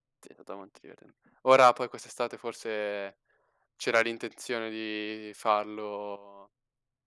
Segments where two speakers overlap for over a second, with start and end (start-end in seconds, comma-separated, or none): none